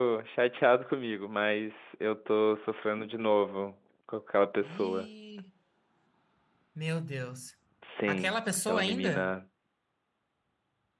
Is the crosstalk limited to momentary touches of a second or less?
No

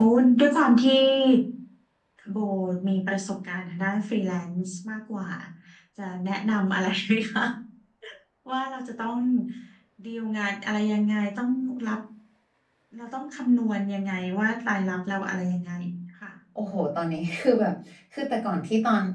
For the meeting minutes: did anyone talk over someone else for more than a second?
No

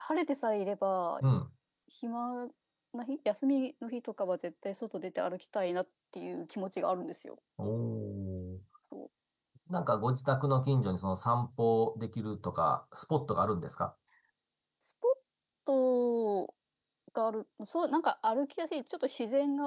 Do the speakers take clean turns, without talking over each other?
Yes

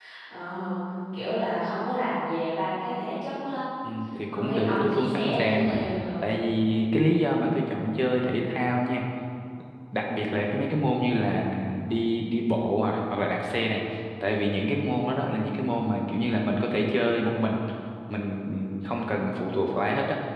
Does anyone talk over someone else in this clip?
Yes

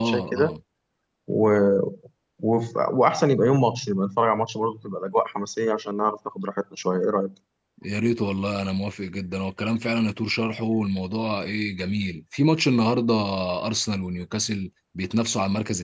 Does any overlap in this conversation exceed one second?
No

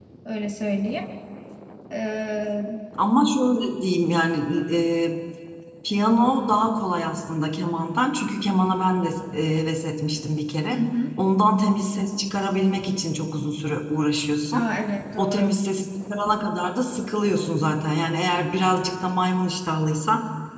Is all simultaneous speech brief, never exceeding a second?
Yes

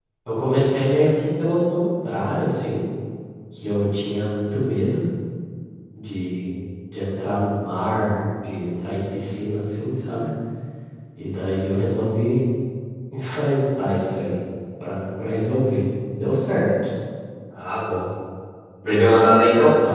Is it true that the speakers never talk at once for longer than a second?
Yes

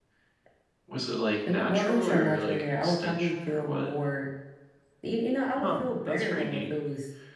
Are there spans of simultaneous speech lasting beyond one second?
Yes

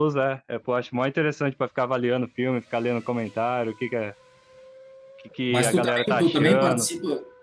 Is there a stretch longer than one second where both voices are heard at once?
Yes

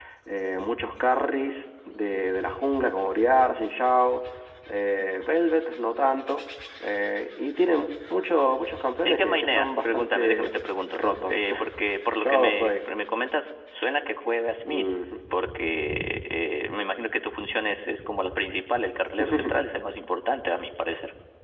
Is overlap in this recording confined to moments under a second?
No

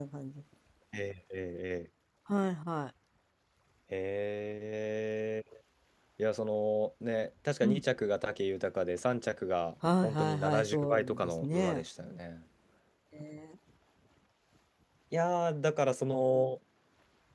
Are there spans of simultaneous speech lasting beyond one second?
Yes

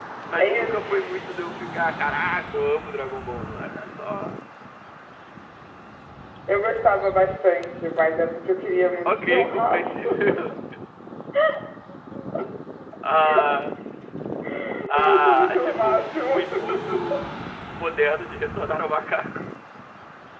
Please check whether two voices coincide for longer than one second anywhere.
Yes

